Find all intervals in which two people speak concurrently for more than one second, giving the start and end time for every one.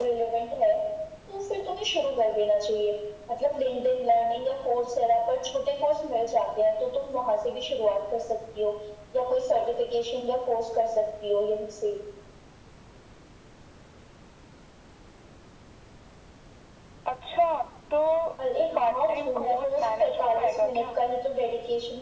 18.8-20.9

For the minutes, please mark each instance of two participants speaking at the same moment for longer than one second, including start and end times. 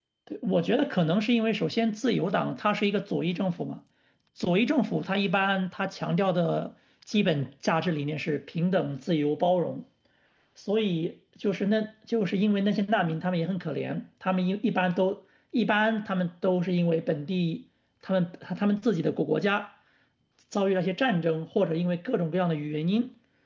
none

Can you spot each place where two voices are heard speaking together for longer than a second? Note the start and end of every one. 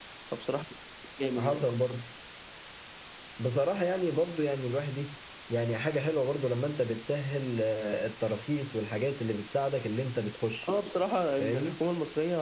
none

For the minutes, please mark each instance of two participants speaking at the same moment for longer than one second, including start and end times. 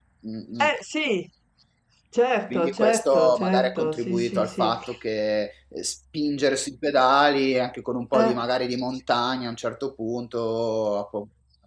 2.5-4.7

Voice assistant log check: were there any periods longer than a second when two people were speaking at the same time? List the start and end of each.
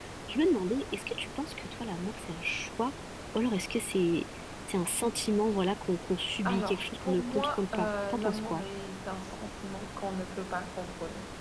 6.5-8.7

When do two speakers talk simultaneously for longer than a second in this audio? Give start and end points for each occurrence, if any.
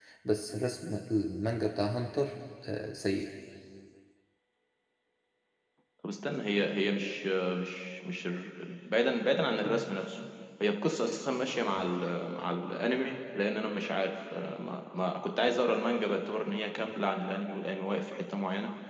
none

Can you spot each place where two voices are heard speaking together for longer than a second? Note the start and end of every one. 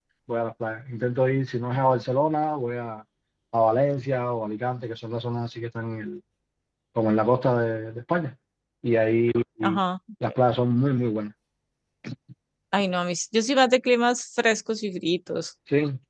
none

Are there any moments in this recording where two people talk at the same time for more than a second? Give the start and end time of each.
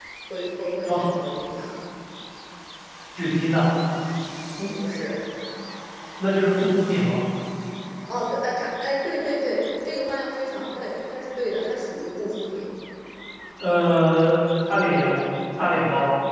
none

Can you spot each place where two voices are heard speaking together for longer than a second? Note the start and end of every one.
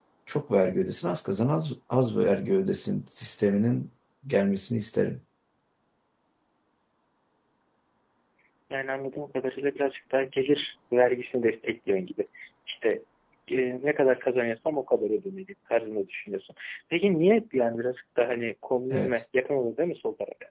none

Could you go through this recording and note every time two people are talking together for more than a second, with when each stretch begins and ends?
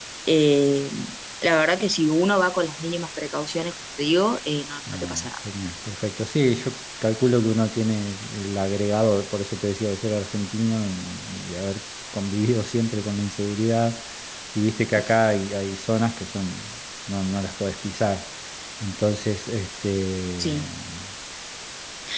none

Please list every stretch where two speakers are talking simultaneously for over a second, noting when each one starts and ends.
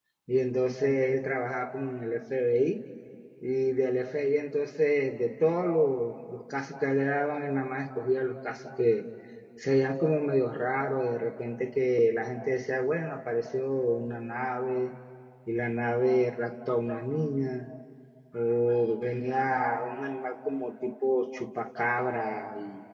none

